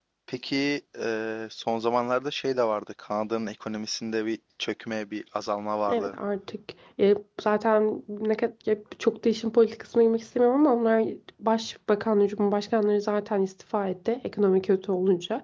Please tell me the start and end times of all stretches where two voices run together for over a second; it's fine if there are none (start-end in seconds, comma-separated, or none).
none